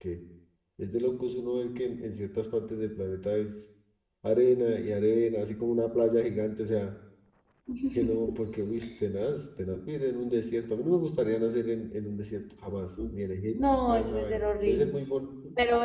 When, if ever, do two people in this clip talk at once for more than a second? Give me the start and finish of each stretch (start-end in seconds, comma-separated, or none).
13.6-14.9